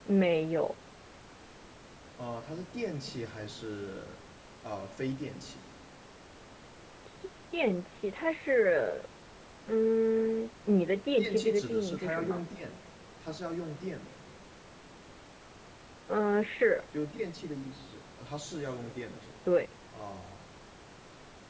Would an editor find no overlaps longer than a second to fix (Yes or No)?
No